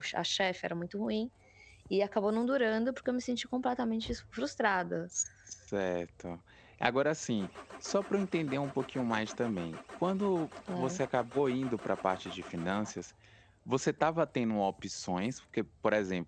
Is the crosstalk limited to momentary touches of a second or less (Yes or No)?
Yes